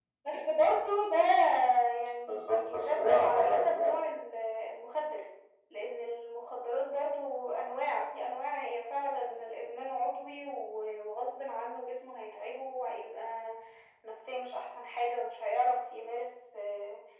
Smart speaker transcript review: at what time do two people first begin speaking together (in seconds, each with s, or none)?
2.3 s